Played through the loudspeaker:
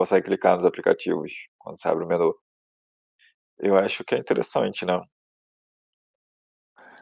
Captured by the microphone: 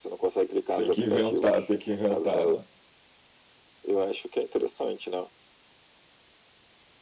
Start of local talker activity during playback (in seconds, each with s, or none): 0.7 s